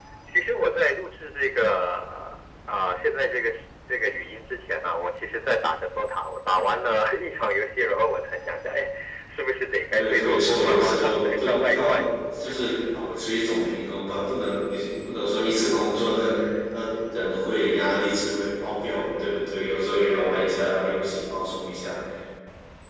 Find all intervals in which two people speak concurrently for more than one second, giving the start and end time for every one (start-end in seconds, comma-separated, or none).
9.9-12.0